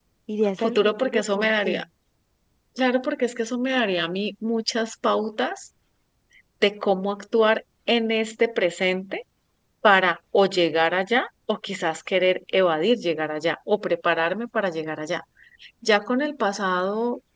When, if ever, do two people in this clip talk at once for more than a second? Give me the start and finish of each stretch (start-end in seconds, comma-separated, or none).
0.6-1.8